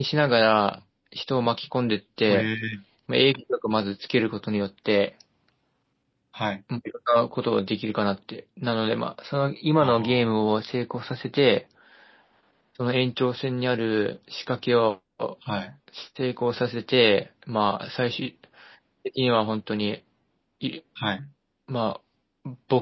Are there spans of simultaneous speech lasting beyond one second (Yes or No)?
No